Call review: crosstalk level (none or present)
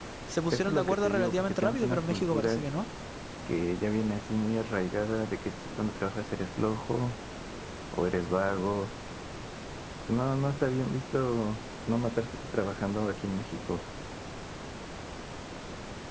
present